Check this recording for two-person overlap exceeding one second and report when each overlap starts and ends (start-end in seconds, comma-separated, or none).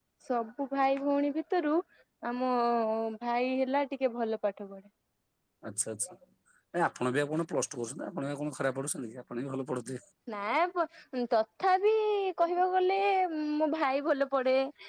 none